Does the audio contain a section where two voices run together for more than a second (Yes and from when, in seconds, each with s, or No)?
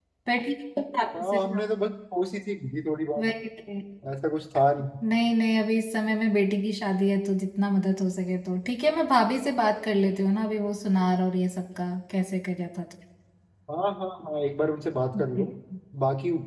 No